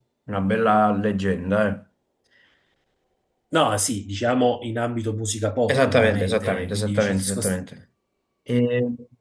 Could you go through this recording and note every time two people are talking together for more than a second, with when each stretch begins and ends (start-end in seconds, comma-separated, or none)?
5.7-7.6